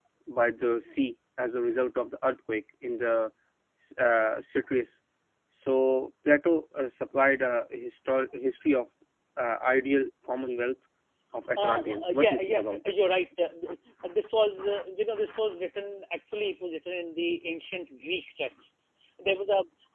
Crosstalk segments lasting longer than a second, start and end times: 11.6-13.0

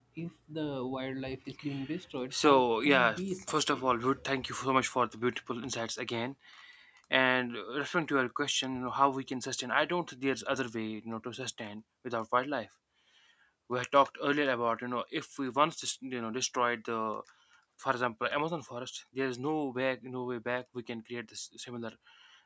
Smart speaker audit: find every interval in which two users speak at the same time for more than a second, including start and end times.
2.3-3.9

